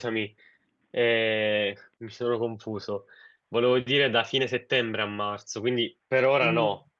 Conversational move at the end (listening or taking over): taking over